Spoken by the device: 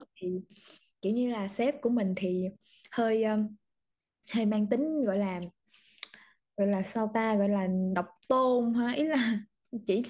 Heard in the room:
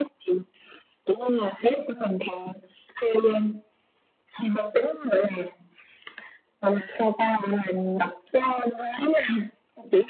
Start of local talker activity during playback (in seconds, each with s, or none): none